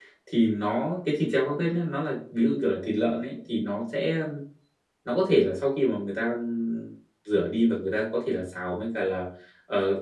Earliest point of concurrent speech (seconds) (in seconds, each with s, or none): none